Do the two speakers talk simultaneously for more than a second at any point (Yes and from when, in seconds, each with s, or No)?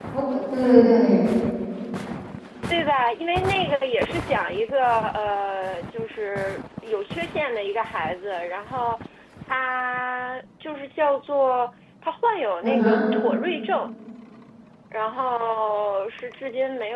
No